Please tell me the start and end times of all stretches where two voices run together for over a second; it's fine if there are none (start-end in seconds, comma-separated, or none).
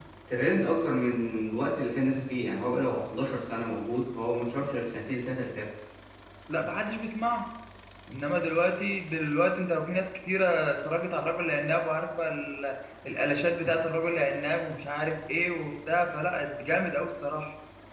none